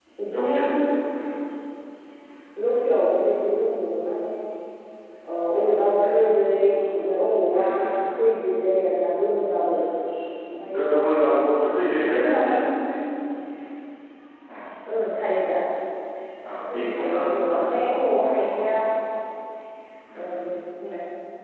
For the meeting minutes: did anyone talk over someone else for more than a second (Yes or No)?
Yes